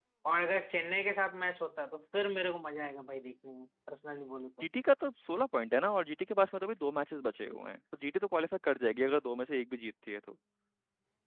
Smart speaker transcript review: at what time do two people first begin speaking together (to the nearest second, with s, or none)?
none